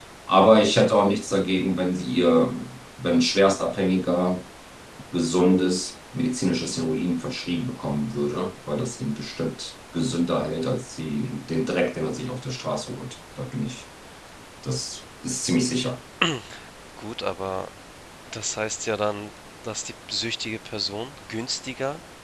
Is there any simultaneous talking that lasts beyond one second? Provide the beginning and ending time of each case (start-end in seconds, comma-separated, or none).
none